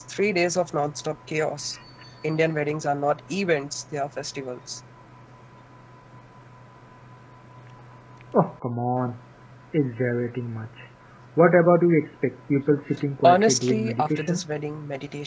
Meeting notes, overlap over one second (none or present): present